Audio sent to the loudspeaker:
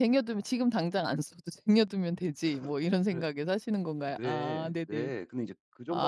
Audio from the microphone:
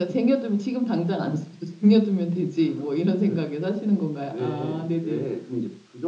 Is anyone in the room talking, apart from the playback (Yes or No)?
No